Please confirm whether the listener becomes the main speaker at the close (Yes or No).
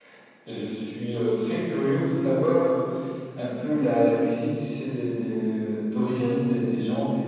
No